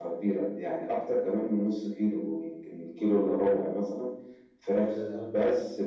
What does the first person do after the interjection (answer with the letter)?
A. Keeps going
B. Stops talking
A